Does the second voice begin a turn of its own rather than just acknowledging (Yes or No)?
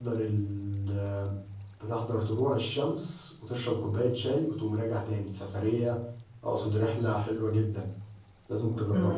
Yes